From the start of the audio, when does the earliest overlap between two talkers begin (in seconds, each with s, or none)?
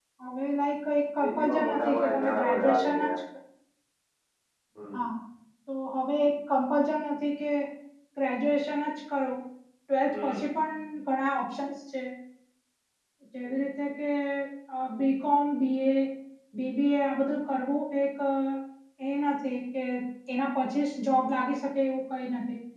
1.2 s